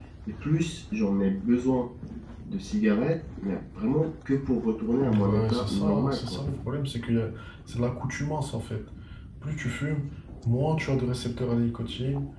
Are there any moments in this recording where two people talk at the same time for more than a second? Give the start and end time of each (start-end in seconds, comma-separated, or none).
5.0-6.4